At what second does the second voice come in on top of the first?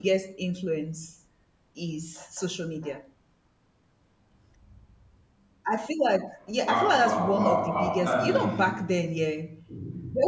7 s

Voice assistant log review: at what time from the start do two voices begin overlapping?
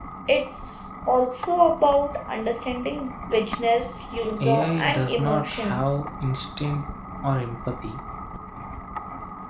4 s

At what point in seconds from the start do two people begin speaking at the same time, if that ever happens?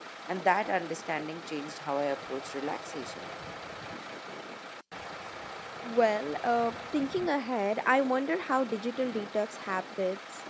none

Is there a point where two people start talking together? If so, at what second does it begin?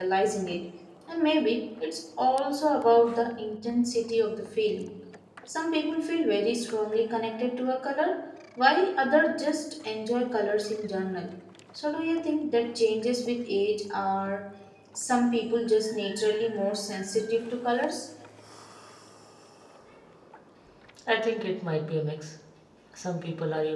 none

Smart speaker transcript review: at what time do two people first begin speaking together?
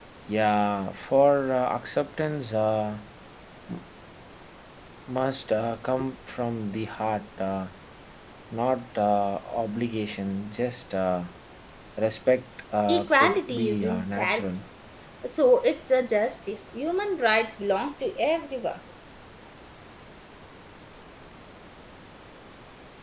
13 s

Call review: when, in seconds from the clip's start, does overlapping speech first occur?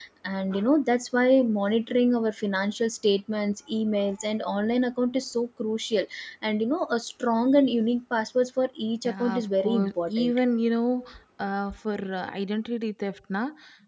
9 s

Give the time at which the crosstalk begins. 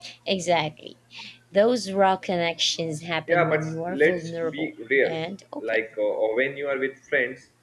3 s

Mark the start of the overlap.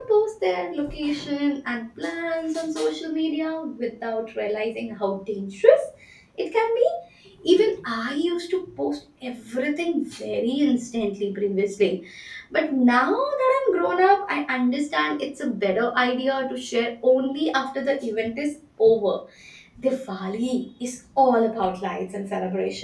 none

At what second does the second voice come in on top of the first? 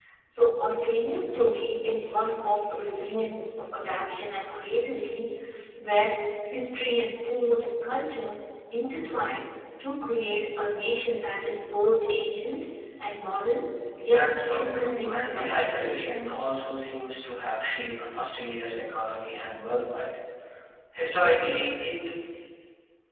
14 s

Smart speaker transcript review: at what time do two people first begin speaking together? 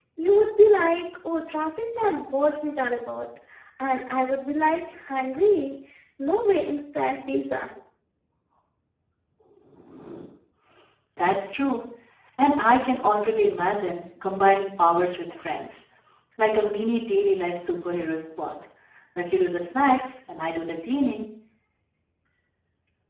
none

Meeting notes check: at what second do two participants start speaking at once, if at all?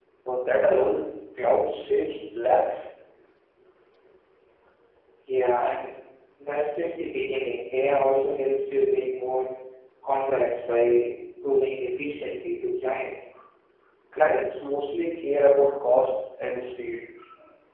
none

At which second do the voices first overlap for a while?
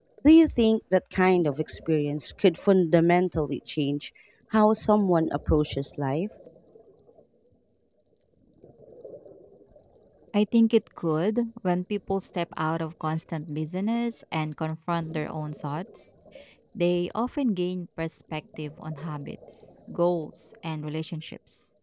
none

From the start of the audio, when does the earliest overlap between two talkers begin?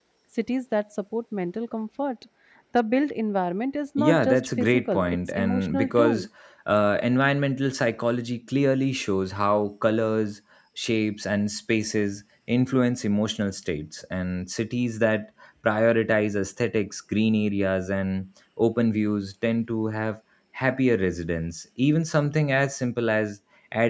4 s

